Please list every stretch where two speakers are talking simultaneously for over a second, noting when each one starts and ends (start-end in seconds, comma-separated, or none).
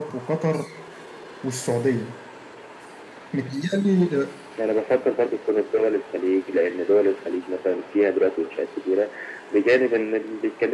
none